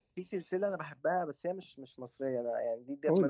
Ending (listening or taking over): listening